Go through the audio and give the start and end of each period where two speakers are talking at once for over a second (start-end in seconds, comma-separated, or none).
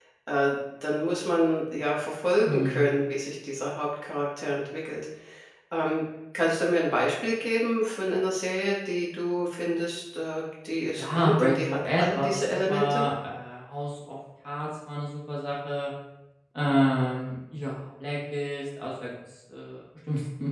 10.9-13.0